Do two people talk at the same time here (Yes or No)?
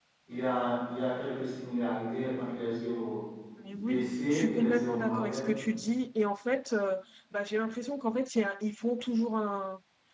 Yes